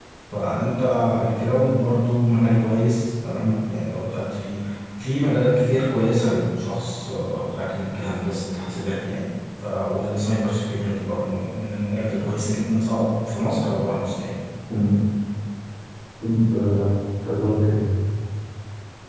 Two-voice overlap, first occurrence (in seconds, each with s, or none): none